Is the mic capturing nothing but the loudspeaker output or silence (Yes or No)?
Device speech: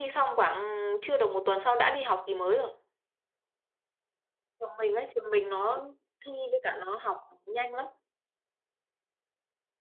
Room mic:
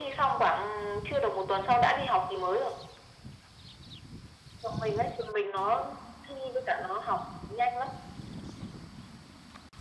Yes